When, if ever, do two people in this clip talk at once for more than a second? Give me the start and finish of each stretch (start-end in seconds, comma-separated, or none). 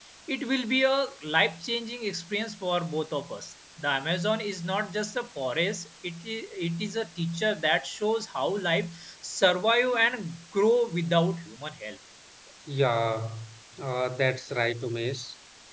none